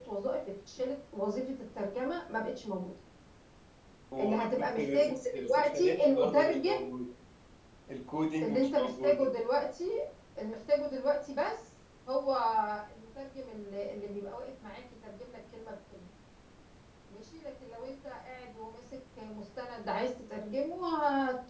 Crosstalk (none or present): present